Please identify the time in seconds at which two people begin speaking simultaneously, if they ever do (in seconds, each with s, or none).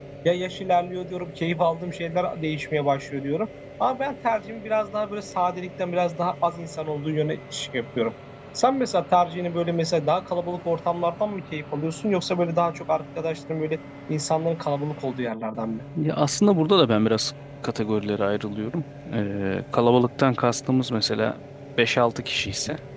none